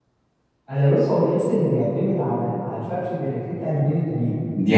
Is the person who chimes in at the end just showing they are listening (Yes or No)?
Yes